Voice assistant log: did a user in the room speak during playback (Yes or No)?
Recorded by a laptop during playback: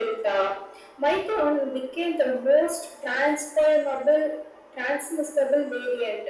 No